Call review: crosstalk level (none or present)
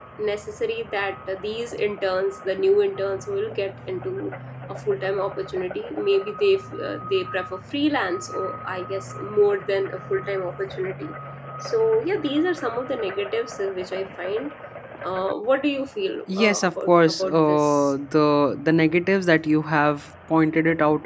present